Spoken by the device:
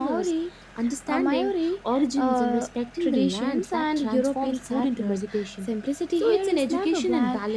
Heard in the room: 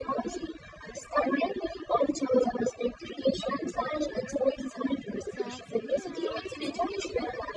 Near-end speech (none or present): present